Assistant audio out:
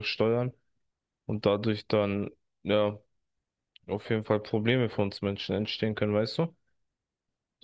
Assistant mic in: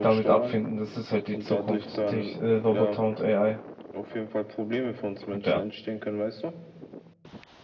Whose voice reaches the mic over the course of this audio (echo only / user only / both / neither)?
both